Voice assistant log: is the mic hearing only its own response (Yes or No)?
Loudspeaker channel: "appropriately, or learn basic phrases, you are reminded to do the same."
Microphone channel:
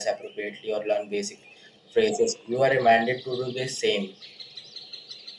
Yes